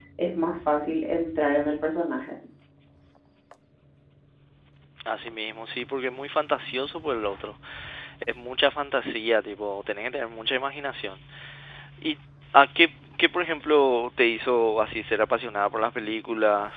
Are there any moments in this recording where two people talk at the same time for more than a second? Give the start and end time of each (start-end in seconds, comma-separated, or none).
none